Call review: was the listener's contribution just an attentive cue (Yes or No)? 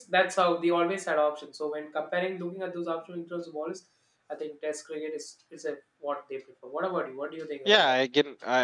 No